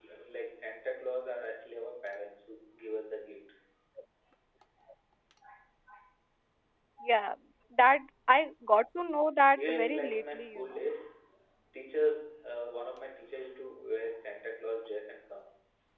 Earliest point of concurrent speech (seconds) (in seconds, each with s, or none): 9.6 s